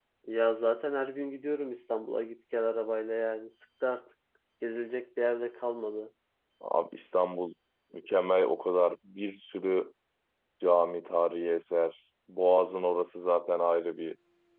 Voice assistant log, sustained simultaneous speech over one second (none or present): none